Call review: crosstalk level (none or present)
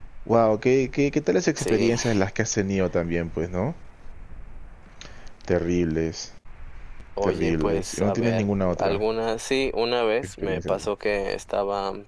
present